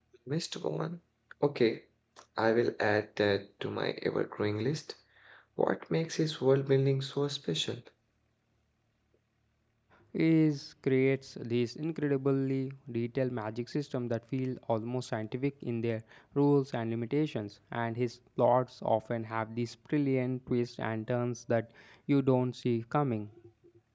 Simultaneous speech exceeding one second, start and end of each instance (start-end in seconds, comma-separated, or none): none